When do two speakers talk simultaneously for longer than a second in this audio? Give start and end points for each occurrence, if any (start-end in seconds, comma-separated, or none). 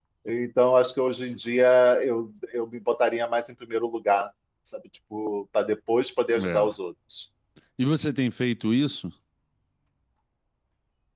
none